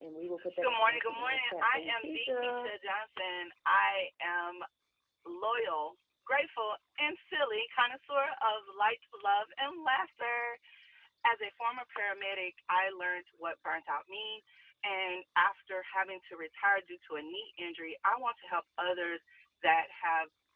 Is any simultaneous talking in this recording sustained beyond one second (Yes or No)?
Yes